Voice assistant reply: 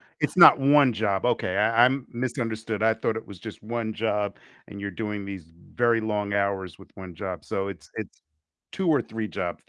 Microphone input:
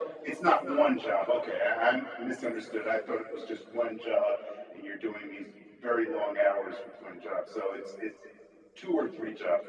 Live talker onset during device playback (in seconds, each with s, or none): none